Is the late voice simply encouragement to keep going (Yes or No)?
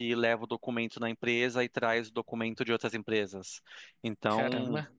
Yes